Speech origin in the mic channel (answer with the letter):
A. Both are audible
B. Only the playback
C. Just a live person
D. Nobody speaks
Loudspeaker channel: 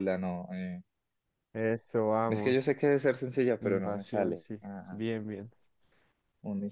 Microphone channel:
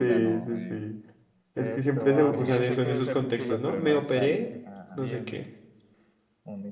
A